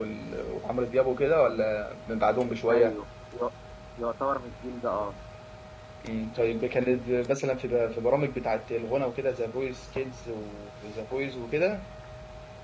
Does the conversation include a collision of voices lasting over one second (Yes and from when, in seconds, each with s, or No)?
No